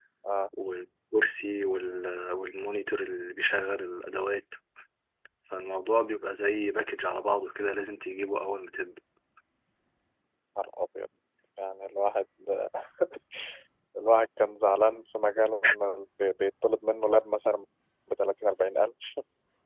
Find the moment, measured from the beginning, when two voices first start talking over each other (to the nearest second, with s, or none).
none